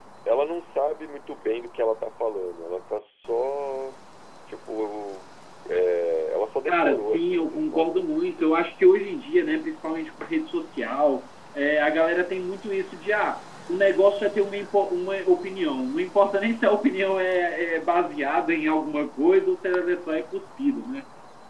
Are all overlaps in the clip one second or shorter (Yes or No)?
No